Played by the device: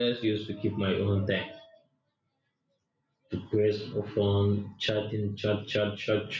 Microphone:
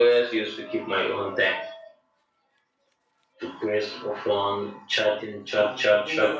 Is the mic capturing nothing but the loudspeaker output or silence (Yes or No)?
No